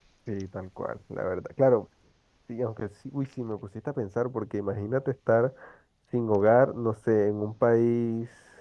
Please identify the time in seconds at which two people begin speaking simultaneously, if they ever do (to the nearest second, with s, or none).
none